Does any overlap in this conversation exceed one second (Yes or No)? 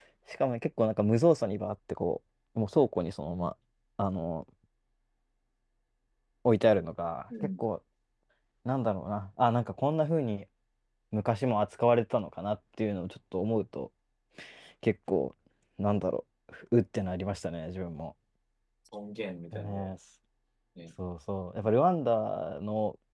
No